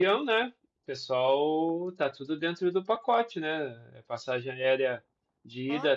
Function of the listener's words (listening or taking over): listening